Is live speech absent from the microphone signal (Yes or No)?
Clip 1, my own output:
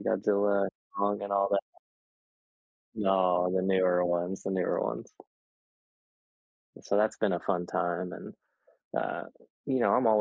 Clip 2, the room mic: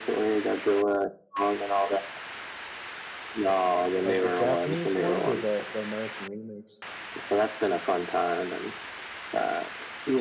No